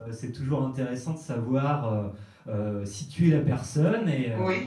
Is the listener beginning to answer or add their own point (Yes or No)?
No